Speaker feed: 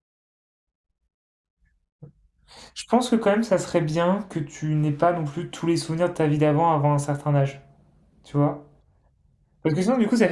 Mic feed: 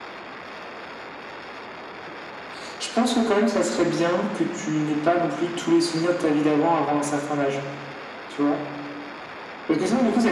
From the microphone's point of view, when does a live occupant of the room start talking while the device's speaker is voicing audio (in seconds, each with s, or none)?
none